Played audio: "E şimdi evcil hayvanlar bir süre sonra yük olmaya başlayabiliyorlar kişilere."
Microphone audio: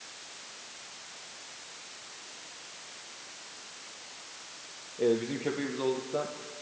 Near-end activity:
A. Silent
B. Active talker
B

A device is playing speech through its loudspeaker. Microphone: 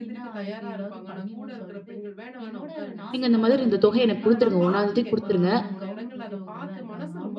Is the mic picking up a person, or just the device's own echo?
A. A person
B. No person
A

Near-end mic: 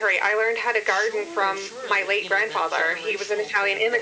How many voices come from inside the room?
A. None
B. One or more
B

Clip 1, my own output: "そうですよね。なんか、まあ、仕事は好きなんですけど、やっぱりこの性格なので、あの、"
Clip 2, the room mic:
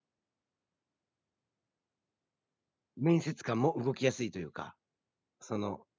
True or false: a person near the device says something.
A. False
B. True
B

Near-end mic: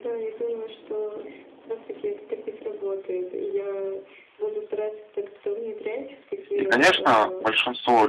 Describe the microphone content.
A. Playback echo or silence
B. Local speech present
B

